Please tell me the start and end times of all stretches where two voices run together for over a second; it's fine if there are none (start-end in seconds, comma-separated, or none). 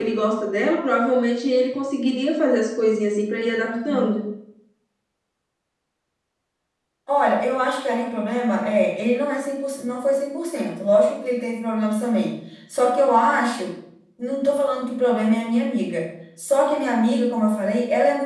none